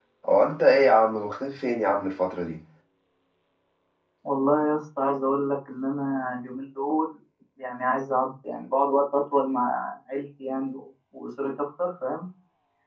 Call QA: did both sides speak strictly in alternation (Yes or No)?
Yes